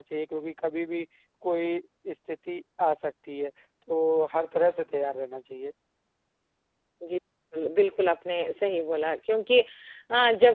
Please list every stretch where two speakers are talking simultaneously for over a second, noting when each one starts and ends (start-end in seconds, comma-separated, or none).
none